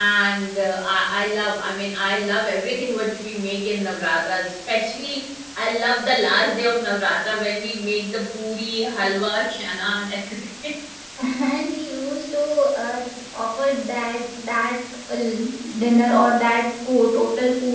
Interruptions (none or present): none